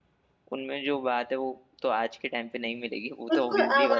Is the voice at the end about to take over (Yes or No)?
Yes